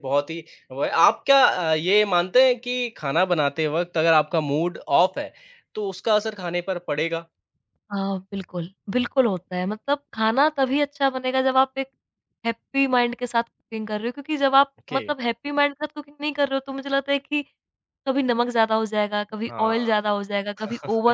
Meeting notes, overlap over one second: none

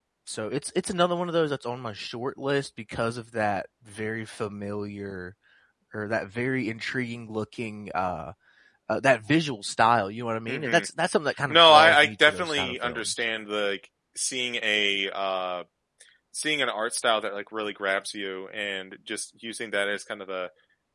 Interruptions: present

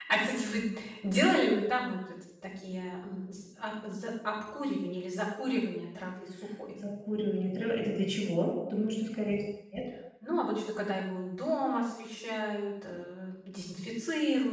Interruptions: none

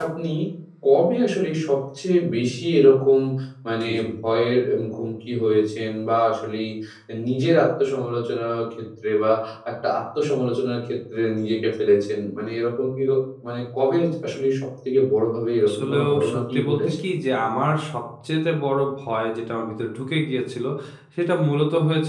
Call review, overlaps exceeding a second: present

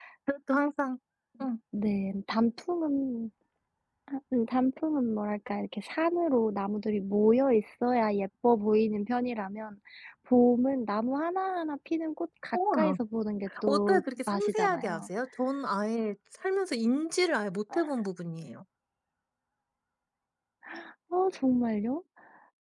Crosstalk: present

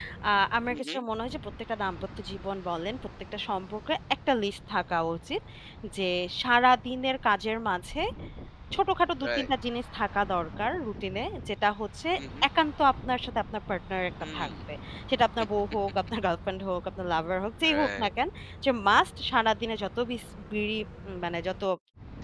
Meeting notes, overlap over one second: none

